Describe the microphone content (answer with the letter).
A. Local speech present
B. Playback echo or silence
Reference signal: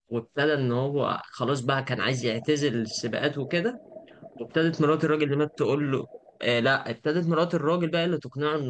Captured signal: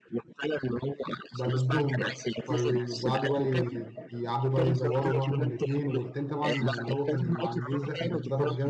A